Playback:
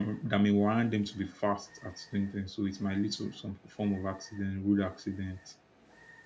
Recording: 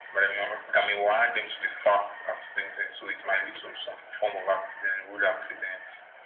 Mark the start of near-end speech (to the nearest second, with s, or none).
none